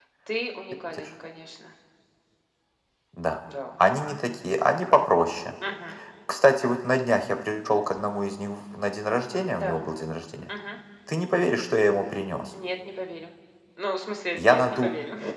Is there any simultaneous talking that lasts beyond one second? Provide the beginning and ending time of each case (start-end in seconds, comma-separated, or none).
none